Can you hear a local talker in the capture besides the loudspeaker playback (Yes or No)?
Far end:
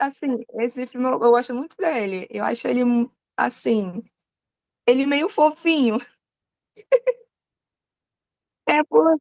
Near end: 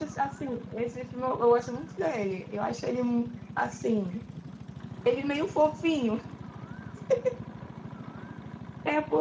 No